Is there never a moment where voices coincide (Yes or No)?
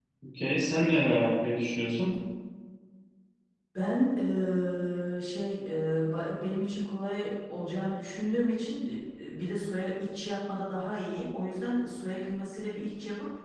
Yes